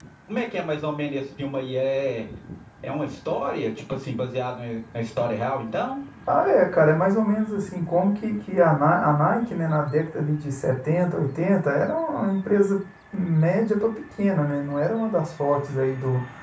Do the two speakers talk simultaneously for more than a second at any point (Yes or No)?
No